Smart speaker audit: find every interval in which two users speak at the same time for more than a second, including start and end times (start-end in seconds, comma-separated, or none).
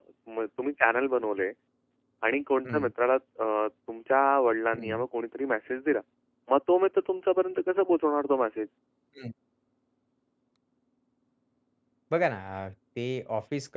none